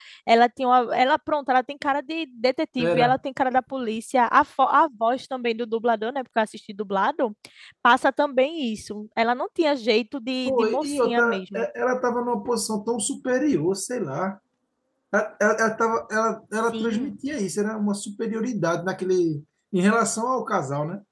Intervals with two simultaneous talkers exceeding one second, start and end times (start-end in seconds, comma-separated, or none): 10.4-11.7